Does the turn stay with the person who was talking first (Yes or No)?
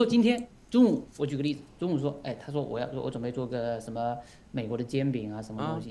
Yes